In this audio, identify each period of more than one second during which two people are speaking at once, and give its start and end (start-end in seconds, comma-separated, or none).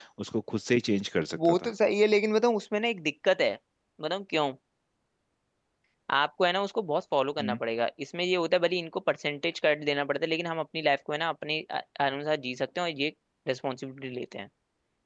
none